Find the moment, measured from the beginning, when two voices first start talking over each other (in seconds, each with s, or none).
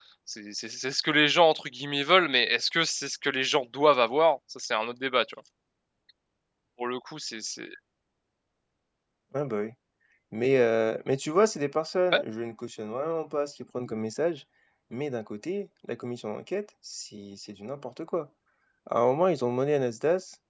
none